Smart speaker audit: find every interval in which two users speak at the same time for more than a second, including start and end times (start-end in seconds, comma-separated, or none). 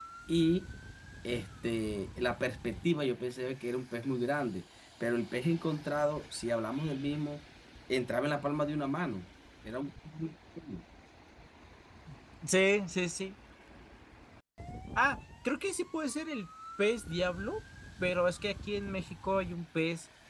none